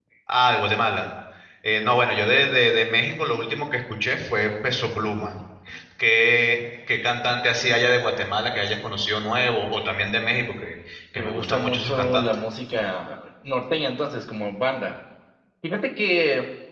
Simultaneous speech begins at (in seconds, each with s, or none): 11.2 s